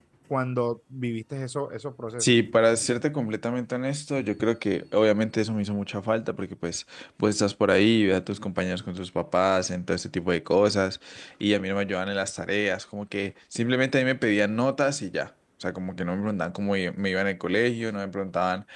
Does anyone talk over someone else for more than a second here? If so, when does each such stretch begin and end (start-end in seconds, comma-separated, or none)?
none